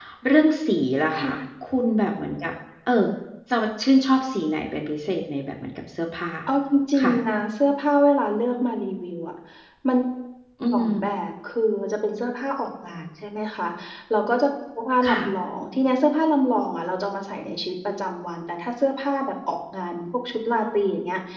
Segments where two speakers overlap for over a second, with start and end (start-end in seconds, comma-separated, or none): none